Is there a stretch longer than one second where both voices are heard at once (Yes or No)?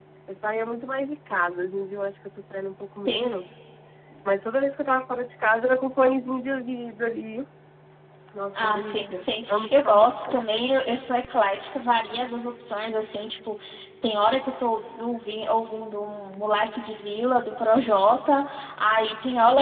Yes